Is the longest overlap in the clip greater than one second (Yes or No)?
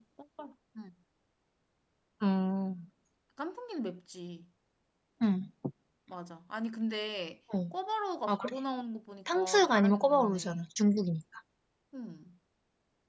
Yes